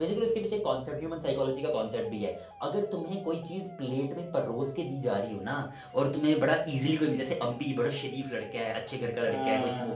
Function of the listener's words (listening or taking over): listening